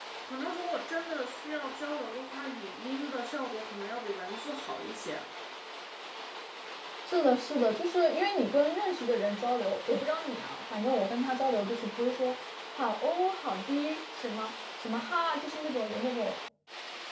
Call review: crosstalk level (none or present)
none